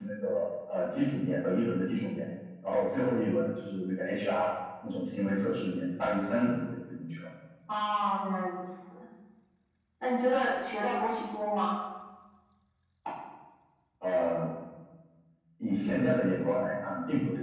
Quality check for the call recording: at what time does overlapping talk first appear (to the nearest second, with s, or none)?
none